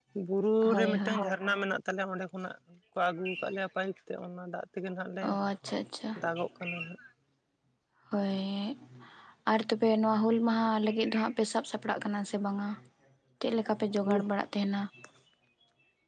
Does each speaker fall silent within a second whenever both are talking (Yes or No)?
Yes